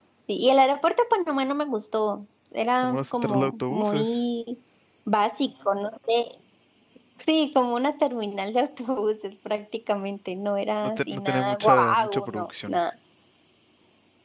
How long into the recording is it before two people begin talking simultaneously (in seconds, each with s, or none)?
2.8 s